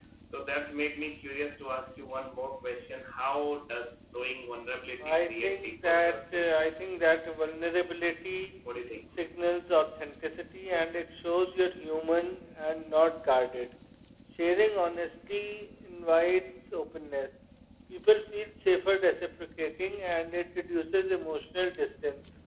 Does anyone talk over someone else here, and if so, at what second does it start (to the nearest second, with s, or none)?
5 s